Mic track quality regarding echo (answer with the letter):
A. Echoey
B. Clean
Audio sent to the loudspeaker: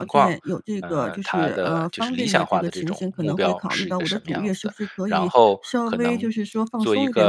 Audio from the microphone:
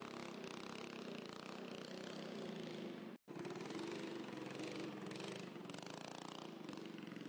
B